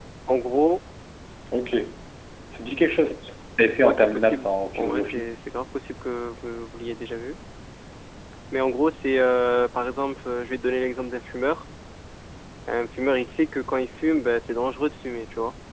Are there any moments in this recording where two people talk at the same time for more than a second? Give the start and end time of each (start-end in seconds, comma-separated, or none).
3.8-5.2